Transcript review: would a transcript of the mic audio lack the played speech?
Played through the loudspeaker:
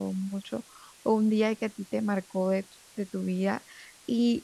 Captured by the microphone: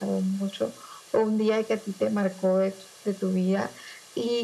No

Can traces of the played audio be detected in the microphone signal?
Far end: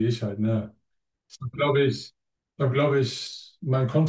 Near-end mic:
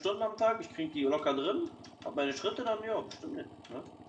No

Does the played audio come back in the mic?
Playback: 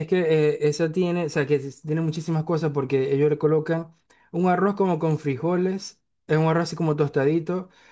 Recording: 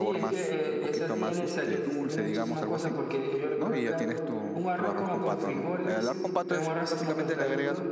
Yes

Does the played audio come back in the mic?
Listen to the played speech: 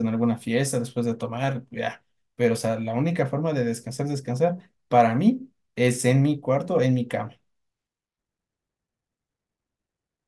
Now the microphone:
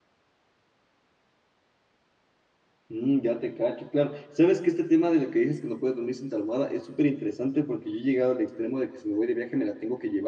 No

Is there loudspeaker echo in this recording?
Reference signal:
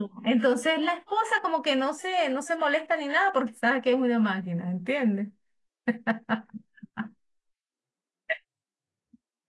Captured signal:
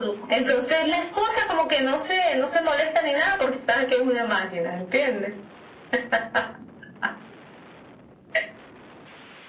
Yes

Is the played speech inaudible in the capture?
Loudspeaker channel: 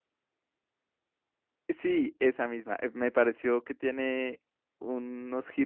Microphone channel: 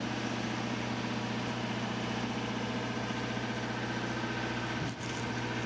Yes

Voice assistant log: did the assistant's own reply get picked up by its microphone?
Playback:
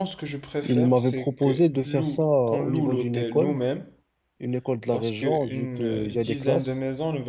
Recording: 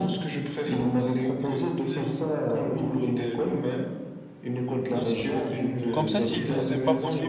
Yes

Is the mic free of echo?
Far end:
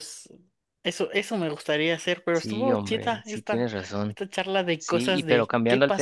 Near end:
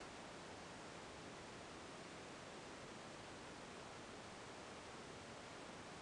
Yes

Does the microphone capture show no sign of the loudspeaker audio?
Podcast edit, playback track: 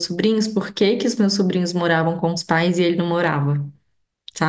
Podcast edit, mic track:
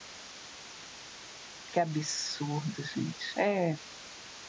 Yes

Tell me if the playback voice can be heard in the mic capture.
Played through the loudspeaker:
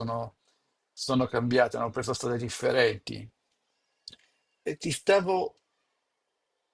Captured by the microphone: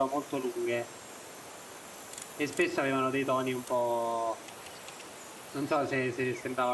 No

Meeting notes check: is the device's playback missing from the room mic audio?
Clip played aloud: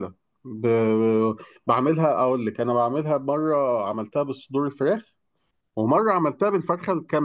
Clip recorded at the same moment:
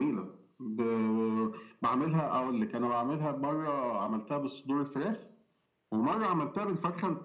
No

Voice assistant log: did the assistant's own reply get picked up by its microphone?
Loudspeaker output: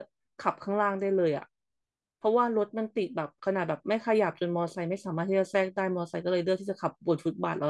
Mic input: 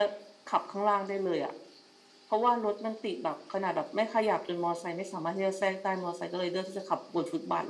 Yes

